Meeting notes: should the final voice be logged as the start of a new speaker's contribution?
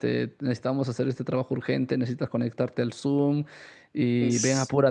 No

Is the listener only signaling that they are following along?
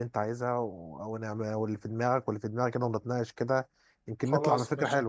No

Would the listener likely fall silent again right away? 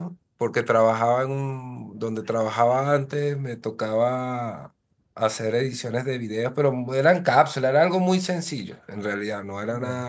Yes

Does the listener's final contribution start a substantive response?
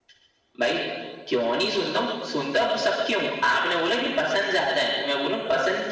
No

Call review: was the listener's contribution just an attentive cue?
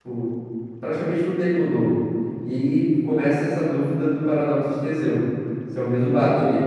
No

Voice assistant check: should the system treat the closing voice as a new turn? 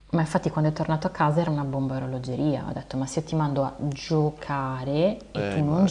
No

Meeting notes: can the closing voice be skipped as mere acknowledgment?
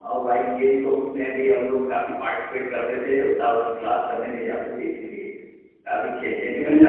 No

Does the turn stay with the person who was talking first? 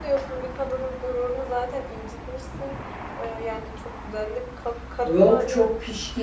No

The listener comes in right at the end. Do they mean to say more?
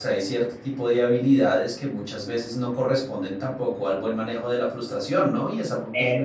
No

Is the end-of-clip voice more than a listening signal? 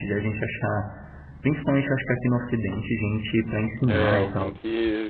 Yes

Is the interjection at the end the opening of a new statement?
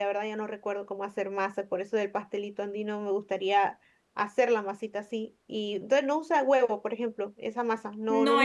Yes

